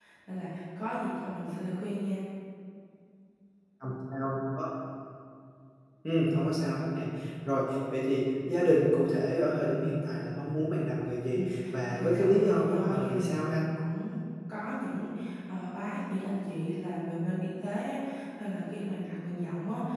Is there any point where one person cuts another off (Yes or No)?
Yes